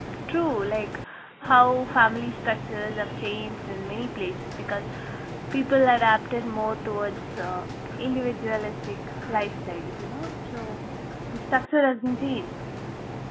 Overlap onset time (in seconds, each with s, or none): none